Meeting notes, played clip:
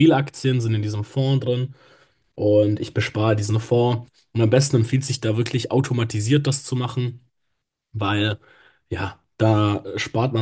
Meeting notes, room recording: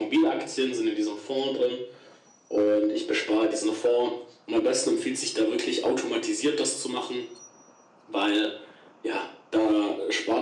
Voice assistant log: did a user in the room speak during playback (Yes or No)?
No